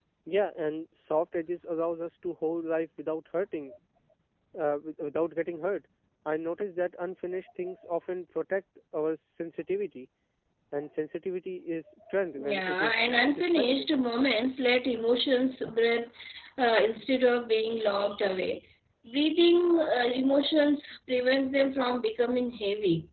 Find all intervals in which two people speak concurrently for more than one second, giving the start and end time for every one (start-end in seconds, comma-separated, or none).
12.4-13.9